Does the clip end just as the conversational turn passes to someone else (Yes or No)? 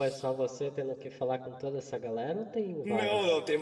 Yes